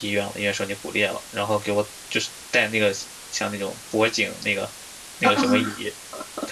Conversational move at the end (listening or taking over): listening